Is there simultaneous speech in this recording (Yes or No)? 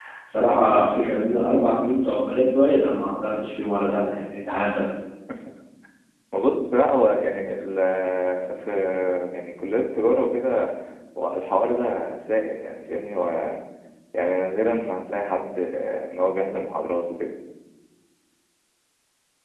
No